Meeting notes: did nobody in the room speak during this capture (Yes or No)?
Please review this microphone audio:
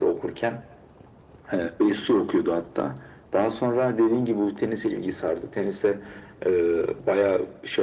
Yes